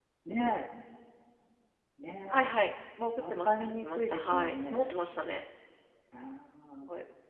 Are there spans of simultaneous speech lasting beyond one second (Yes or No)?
Yes